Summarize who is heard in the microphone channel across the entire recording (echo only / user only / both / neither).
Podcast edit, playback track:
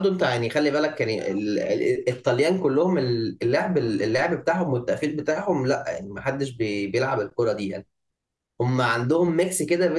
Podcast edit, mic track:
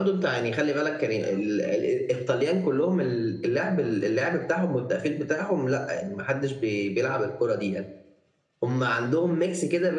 echo only